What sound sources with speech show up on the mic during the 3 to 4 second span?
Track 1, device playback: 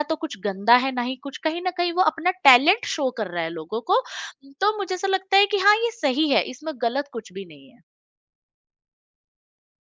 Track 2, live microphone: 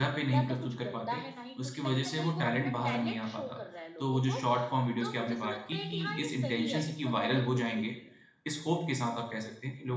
both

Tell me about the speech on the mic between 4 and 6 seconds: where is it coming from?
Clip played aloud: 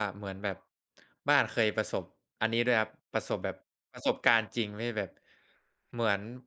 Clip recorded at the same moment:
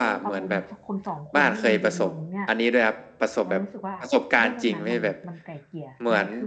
both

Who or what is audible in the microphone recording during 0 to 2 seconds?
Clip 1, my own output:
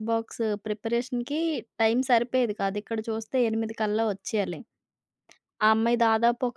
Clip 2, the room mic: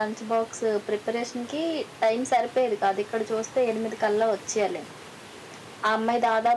echo only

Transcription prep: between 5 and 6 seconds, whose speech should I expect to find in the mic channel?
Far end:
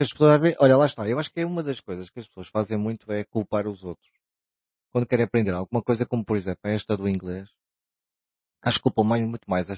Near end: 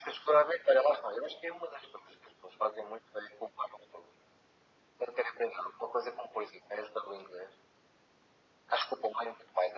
echo only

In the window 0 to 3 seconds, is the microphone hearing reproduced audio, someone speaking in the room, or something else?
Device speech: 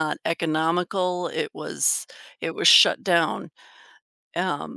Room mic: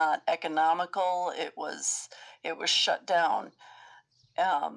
echo only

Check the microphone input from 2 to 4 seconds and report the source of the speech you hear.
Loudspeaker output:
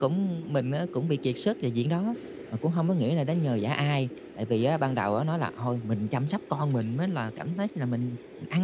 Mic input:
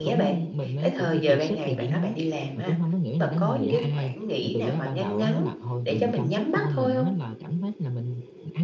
both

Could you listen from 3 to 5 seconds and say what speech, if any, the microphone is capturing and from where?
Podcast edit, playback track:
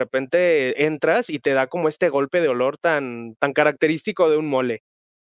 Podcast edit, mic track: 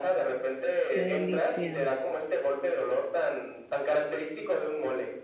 echo only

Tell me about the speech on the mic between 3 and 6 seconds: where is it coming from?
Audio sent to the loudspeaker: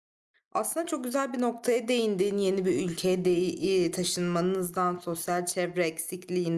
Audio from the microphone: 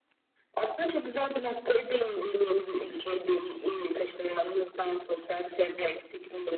echo only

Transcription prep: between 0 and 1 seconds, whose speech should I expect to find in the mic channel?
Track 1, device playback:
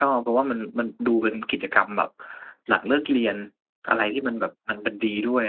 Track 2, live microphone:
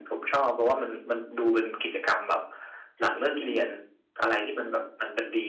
echo only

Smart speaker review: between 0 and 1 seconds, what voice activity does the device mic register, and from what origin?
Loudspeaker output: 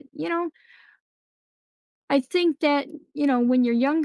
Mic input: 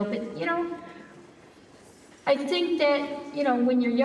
echo only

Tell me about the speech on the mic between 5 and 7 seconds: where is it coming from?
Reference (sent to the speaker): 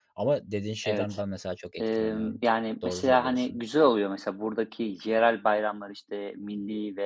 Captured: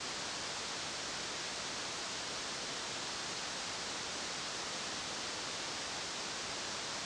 neither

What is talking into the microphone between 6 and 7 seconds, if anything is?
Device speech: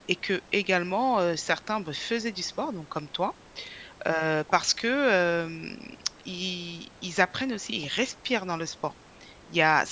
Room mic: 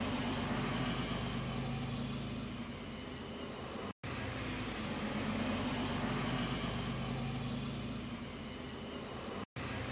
neither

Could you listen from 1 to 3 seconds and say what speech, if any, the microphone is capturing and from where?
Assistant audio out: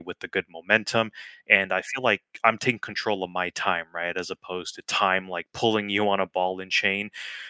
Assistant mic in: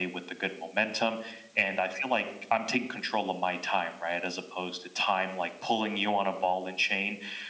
echo only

